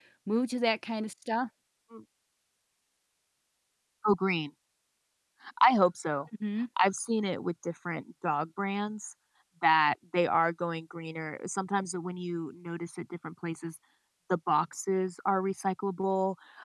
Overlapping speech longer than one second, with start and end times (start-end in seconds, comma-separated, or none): none